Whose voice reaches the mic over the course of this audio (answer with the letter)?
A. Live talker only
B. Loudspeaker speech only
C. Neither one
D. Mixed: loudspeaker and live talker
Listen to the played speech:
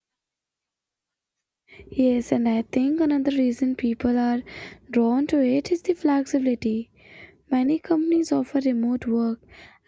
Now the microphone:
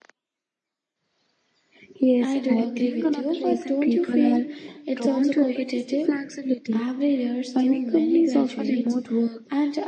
D